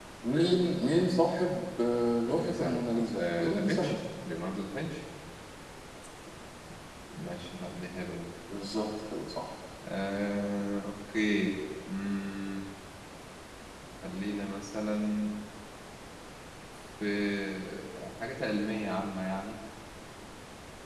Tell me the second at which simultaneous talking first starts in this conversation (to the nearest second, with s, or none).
2 s